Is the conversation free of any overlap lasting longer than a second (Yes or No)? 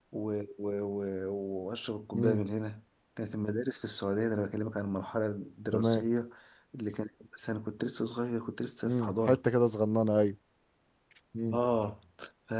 Yes